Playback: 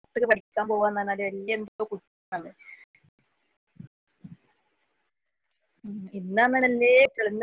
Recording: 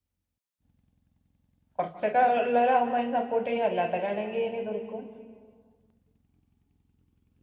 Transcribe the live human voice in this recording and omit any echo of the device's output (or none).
കൊർച്ചൊക്കെ ഒള്ളവരാവുമ്പേ വോട്ടെയ്യും അല്ലാത്തലാണെങ്കി അതിന് എതിർക്കും,